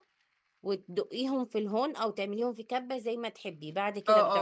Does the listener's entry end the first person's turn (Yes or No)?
Yes